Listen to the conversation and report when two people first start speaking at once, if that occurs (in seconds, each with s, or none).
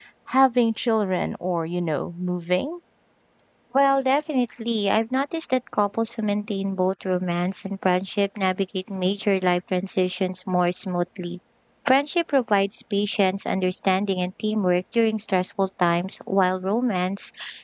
none